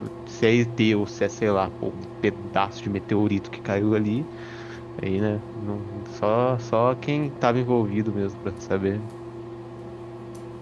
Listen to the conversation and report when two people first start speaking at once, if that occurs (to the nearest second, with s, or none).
none